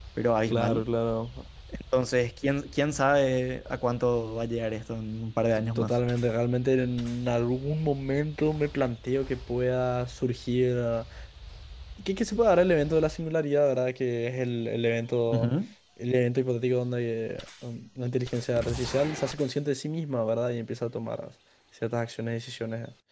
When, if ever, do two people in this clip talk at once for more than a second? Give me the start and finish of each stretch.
none

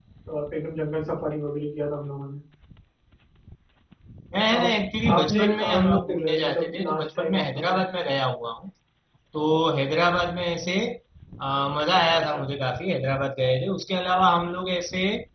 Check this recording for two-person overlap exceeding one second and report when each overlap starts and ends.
5.2-7.8

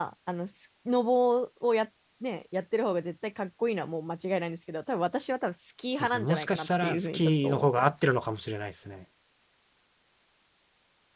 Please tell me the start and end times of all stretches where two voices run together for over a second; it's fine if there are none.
6.0-7.9

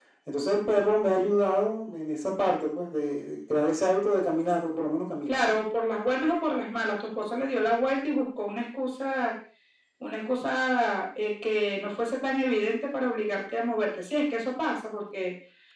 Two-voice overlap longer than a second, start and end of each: none

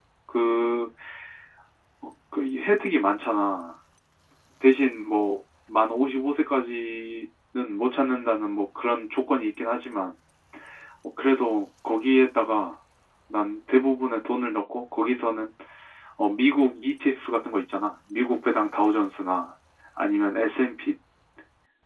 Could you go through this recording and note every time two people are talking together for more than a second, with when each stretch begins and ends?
none

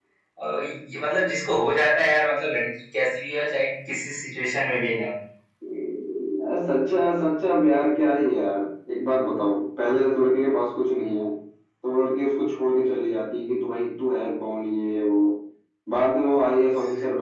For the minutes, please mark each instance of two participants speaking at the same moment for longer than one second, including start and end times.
none

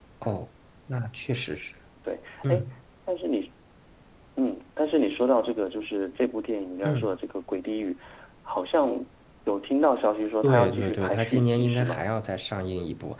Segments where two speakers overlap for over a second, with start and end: 10.4-12.0

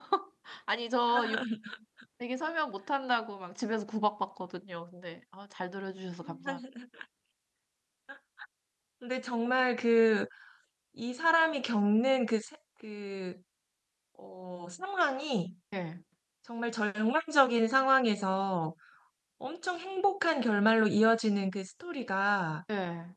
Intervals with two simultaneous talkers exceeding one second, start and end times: none

